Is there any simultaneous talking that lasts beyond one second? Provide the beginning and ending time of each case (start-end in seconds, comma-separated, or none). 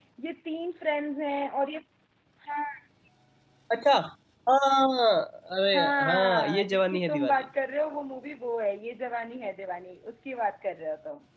5.7-7.3